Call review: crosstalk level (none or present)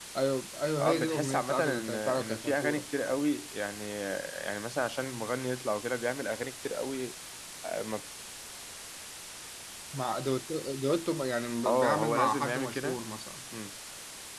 present